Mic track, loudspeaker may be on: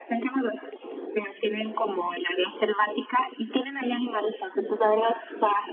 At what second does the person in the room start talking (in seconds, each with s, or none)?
none